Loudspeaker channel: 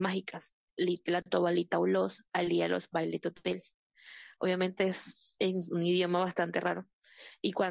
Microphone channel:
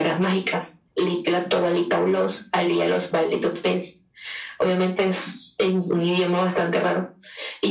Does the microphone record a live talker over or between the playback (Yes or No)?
No